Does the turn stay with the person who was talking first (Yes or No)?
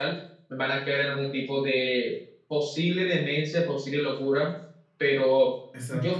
Yes